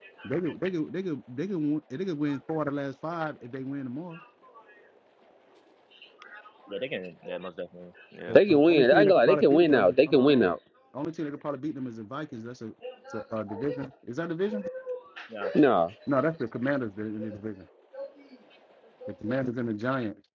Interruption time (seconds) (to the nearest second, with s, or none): 8 s